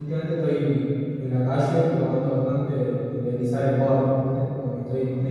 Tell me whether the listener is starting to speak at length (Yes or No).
No